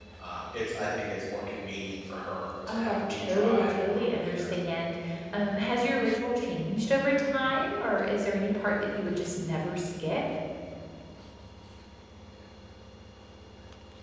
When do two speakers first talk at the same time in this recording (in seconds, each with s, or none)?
2.7 s